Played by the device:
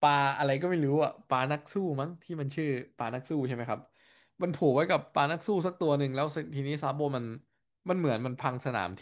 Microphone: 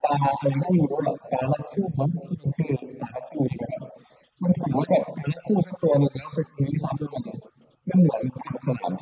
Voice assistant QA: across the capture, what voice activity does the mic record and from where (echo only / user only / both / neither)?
echo only